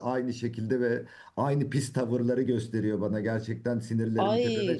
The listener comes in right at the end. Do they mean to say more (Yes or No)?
Yes